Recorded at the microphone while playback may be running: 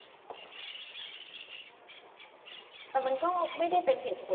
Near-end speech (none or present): present